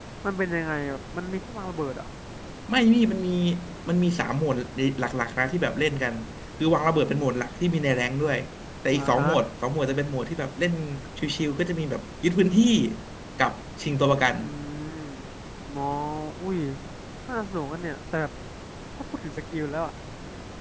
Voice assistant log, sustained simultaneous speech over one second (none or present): none